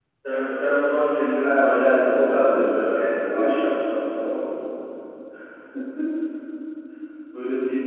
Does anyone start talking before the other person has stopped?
Yes, from 1.4 s

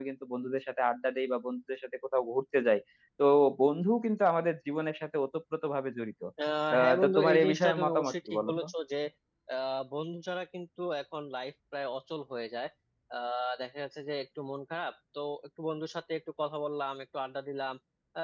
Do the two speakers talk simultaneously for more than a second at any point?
Yes, from 6.8 s

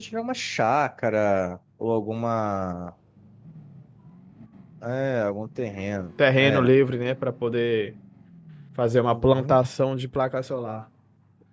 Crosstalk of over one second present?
No

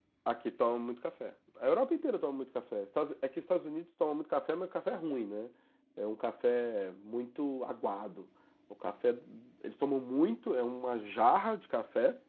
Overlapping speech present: No

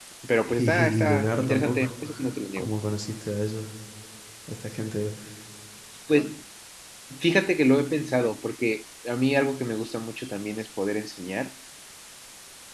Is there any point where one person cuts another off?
Yes, from 0.6 s

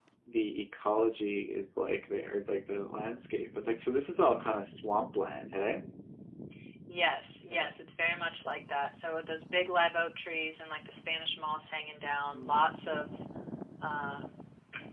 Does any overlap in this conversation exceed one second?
No

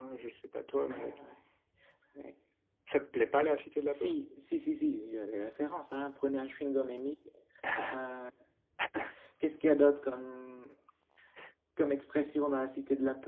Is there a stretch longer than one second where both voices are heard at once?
No

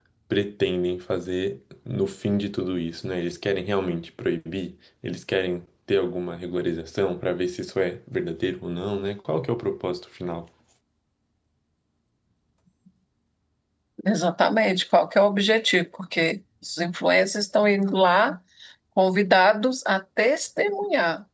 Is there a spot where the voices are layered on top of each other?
No

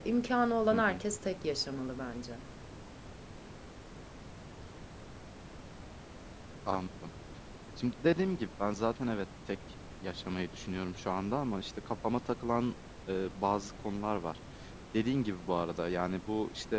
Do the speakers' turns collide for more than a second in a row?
No

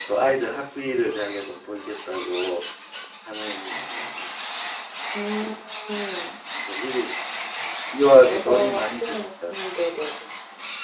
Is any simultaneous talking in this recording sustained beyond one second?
Yes, from 8.2 s

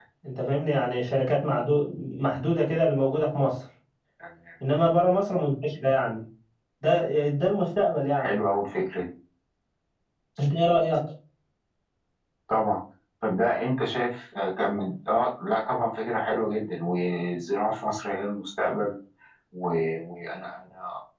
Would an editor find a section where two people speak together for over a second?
No

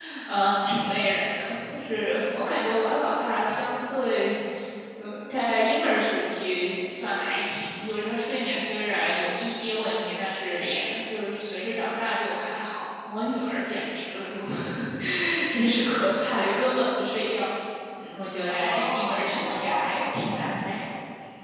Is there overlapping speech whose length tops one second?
Yes, from 18.5 s

